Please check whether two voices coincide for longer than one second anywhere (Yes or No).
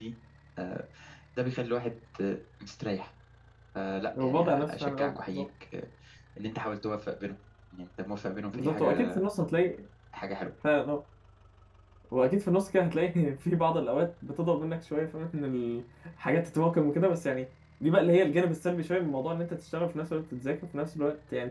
Yes